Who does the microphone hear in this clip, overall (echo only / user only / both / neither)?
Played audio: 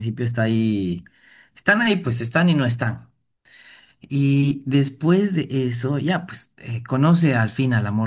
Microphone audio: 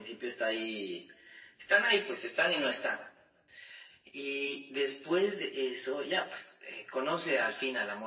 echo only